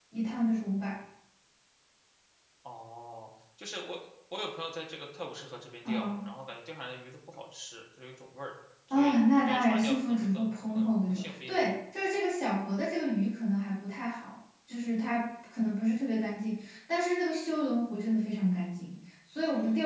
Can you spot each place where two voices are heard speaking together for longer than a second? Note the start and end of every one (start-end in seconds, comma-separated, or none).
8.9-11.7